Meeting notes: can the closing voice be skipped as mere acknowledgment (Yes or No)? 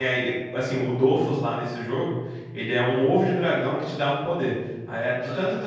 Yes